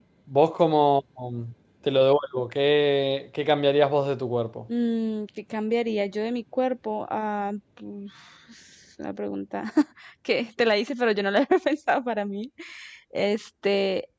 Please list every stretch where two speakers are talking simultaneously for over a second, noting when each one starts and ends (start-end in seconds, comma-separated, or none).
none